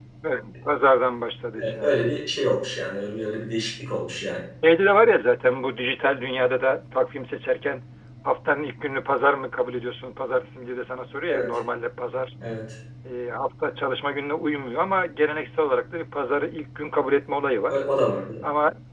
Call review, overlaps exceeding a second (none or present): none